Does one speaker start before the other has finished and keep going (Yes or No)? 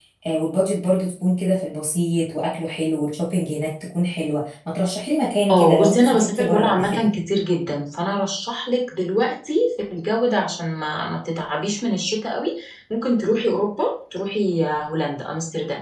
Yes